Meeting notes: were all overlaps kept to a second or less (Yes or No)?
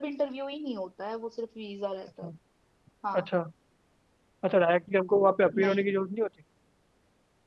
Yes